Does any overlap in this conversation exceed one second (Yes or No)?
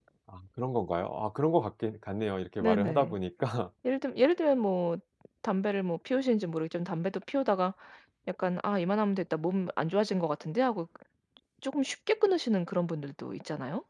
No